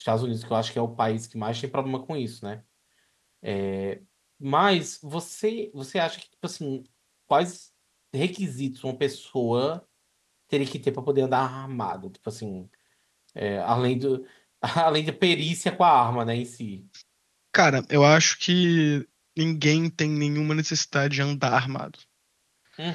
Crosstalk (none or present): none